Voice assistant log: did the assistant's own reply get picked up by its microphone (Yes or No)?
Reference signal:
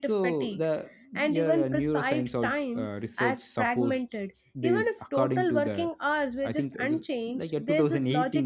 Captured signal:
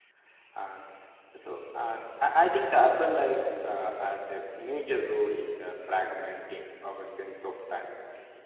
No